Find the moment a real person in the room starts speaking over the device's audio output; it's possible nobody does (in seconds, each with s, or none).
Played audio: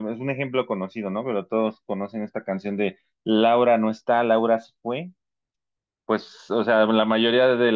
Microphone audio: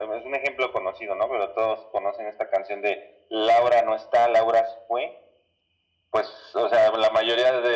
none